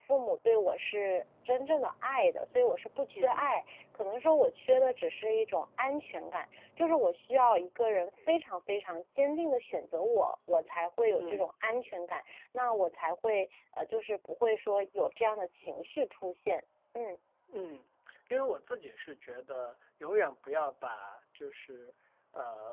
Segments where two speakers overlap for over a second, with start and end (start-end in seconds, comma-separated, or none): none